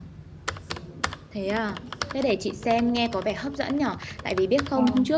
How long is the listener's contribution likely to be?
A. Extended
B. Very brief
B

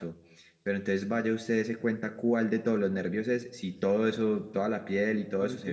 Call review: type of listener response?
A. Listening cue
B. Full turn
A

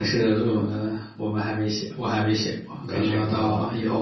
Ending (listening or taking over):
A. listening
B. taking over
B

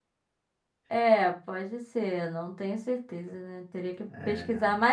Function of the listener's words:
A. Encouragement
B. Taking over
A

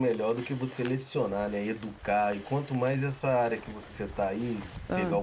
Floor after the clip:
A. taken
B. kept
B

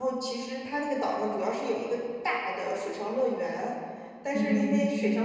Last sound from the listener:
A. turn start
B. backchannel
B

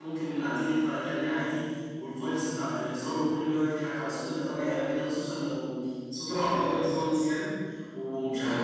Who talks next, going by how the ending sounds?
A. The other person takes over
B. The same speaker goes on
B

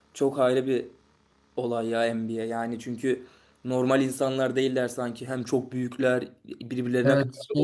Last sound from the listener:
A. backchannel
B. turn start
B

